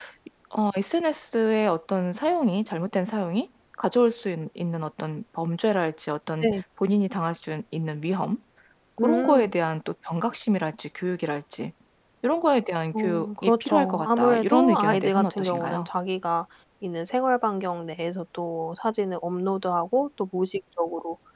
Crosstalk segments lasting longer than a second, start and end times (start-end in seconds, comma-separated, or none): 12.9-15.9